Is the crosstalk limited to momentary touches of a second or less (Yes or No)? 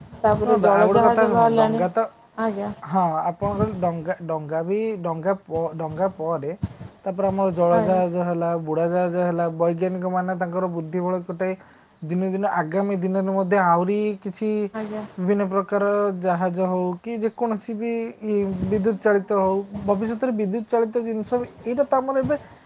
No